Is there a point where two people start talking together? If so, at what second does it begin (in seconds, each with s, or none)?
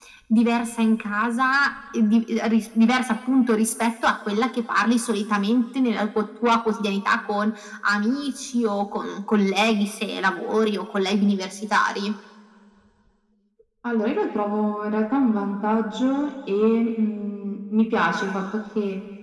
none